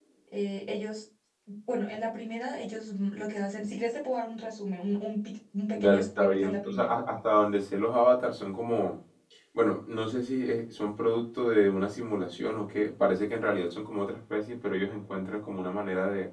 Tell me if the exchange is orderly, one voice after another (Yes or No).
No